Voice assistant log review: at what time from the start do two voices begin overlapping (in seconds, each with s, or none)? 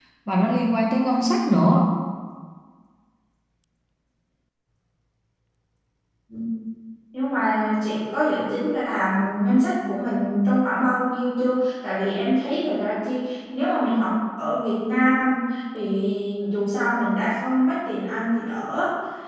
none